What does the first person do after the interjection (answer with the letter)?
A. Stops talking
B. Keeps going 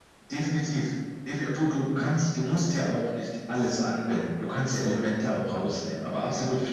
B